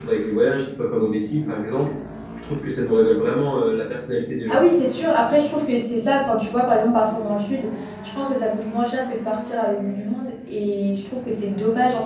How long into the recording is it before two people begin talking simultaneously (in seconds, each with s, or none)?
none